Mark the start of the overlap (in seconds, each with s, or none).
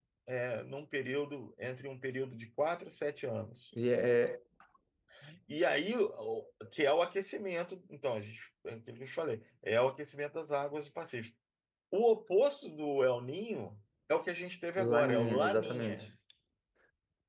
14.8 s